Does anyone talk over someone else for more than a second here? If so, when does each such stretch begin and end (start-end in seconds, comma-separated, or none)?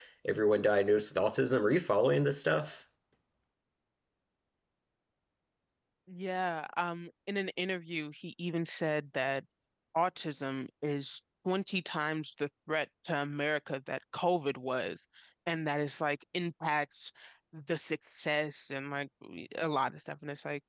none